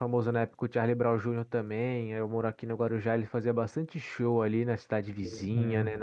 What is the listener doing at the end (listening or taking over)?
listening